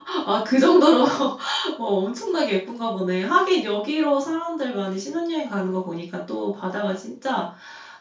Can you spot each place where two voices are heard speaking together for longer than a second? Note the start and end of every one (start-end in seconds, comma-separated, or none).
none